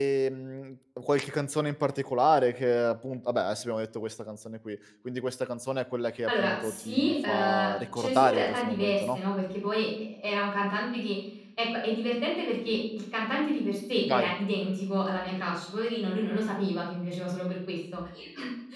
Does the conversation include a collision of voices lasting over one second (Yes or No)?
Yes